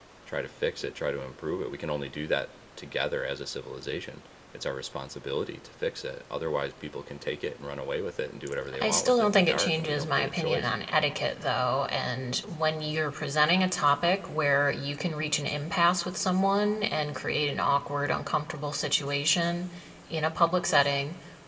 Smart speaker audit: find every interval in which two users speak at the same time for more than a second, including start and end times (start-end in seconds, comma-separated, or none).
8.8-10.7